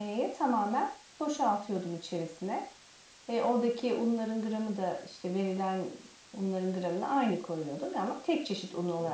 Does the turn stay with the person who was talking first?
No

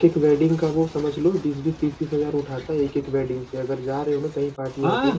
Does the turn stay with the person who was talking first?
No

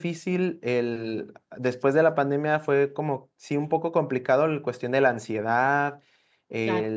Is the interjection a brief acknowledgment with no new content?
Yes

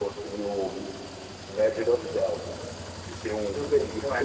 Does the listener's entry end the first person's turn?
No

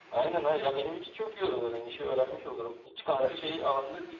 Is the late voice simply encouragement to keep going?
Yes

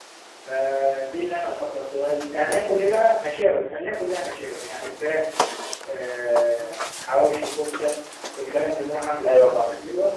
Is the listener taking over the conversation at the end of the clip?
No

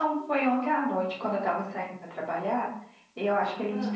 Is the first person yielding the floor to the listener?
No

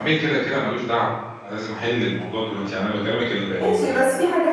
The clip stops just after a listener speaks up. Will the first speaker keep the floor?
No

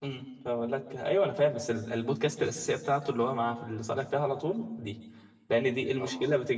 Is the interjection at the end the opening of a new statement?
No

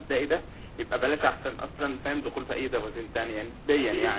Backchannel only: Yes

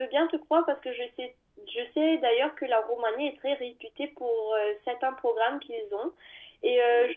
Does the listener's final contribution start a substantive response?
No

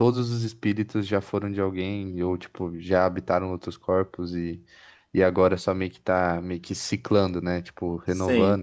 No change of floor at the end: No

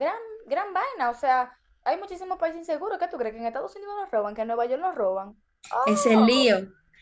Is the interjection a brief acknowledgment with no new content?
No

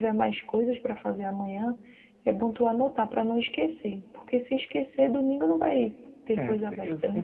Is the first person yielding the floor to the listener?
Yes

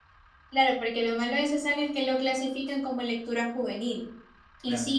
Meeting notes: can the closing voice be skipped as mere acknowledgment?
Yes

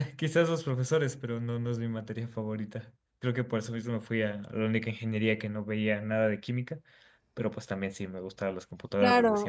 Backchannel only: No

